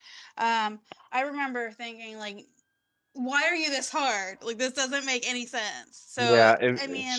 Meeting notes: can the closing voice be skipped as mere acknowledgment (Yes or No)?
No